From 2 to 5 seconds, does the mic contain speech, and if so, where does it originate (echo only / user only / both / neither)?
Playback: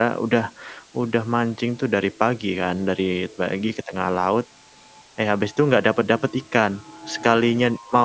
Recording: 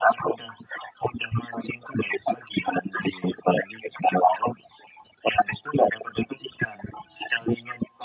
echo only